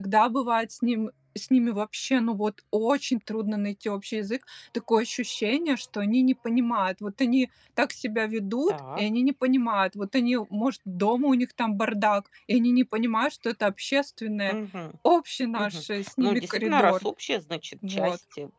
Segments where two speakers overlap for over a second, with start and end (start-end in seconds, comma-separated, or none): 15.6-17.0